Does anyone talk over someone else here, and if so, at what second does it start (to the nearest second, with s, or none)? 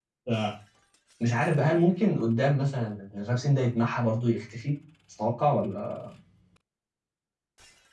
none